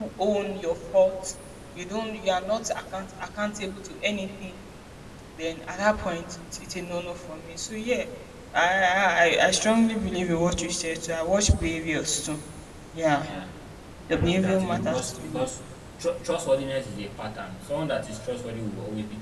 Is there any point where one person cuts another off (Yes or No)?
Yes